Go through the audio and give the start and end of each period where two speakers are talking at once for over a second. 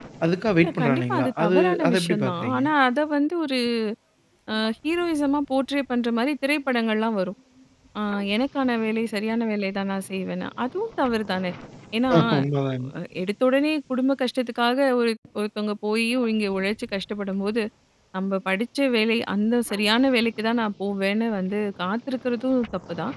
0.6-2.6

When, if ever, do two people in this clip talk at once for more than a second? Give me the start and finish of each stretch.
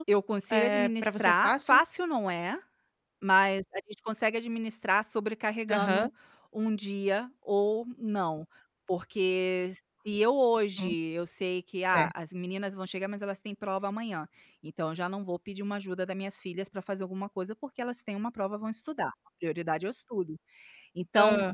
0.5-1.8

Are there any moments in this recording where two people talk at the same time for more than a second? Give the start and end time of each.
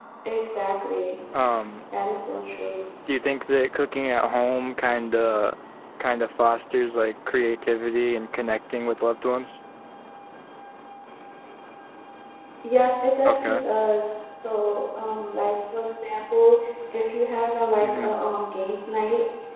none

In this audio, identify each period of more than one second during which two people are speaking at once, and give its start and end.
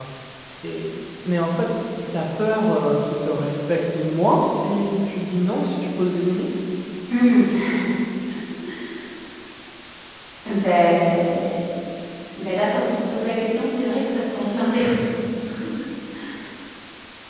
none

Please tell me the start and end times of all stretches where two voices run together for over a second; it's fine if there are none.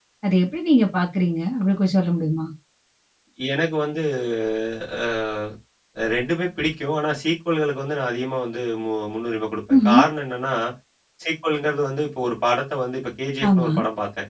none

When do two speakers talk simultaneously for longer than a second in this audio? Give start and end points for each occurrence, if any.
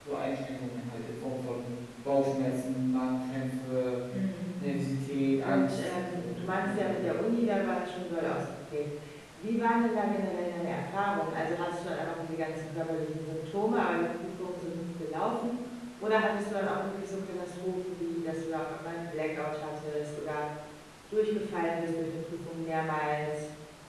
5.4-7.0

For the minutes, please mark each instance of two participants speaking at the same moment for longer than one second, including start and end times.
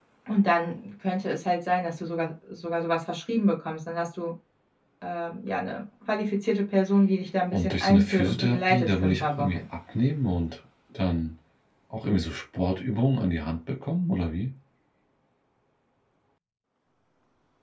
7.5-9.6

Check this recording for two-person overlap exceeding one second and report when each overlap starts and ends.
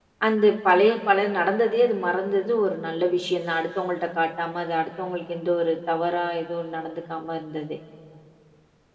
none

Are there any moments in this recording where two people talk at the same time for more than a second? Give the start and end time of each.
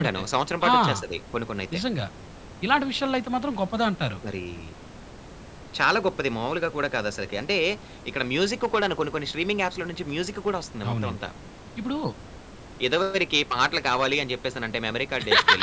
none

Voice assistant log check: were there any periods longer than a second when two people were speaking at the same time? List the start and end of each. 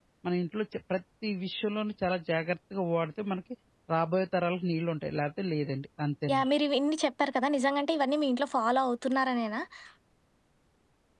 none

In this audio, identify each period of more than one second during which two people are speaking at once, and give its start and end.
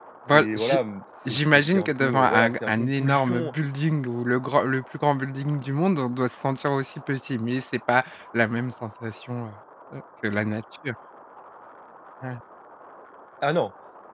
1.3-3.5

